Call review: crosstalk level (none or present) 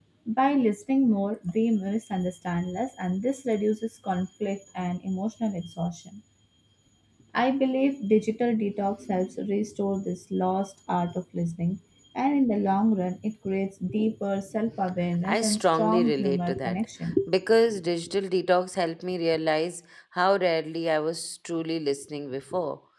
present